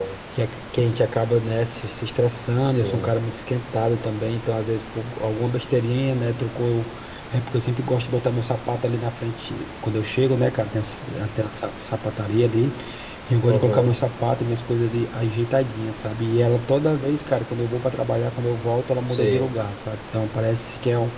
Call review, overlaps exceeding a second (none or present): none